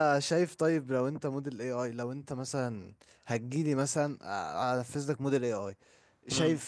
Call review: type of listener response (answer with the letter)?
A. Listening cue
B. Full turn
A